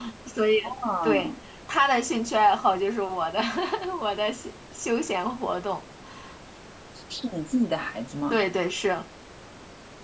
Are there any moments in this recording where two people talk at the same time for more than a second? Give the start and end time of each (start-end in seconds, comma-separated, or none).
none